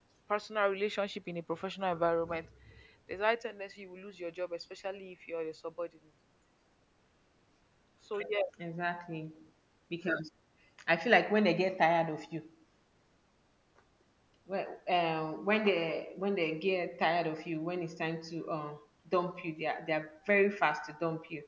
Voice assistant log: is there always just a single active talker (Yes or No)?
Yes